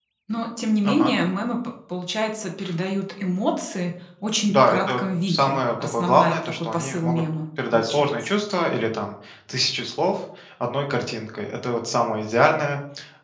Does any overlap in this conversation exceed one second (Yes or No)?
Yes